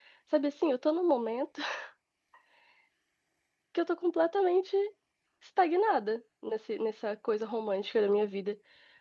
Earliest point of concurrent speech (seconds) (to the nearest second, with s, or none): none